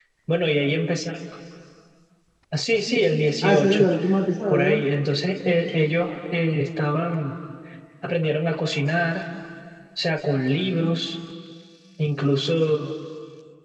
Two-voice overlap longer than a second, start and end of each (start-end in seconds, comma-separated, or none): none